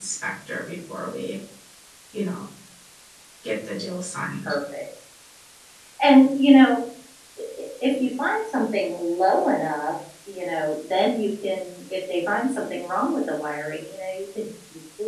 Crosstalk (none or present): none